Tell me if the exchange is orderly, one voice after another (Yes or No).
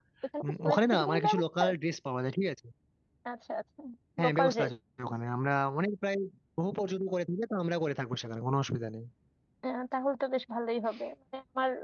No